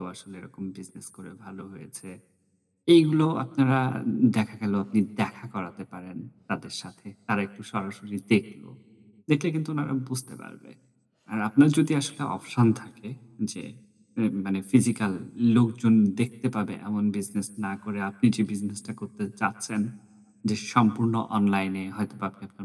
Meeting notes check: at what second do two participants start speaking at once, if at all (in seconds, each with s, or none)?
none